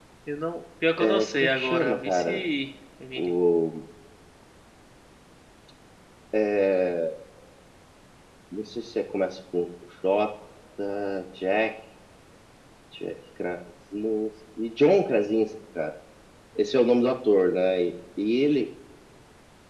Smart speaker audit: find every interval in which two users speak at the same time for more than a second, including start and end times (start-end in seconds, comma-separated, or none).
1.0-2.5